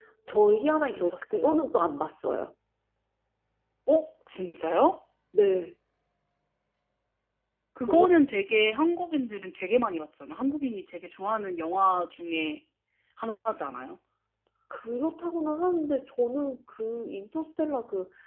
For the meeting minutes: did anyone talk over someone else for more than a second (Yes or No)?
No